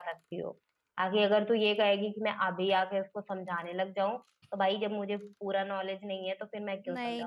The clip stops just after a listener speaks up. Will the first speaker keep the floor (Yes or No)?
No